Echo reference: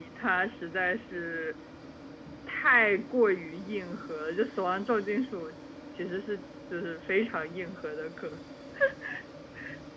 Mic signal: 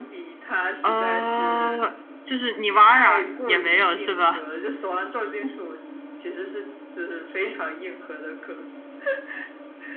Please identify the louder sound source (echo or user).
user